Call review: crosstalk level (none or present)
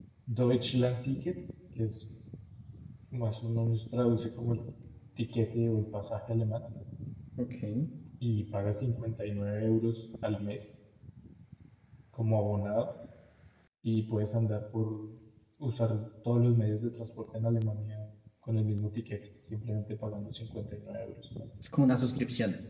none